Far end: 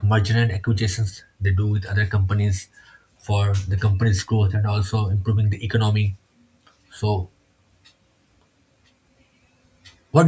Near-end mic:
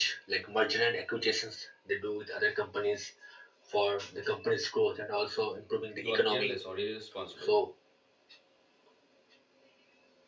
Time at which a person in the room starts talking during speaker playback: 6.0 s

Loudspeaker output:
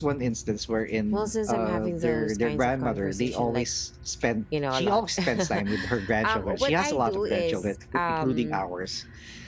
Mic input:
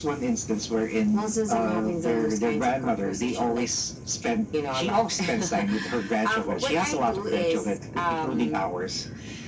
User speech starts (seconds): none

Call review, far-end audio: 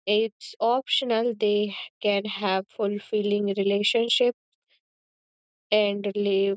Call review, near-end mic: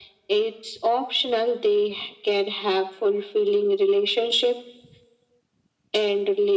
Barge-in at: none

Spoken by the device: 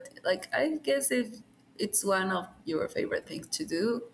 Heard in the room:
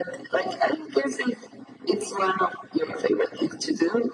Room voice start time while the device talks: none

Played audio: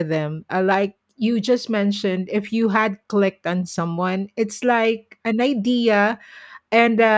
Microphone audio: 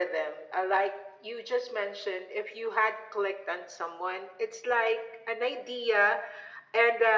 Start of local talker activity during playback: none

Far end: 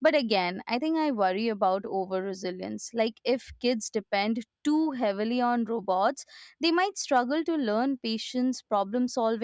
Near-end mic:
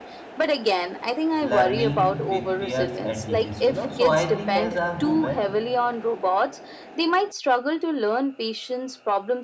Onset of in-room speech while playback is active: 1.4 s

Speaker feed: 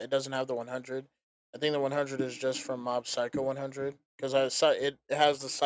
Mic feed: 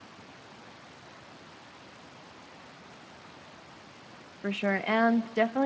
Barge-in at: 4.4 s

